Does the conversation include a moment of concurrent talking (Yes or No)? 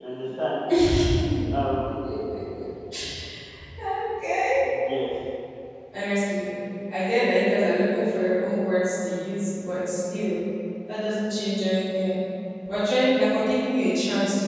No